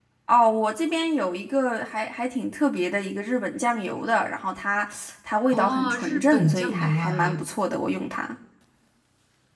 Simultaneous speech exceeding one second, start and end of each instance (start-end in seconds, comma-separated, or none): 5.5-7.5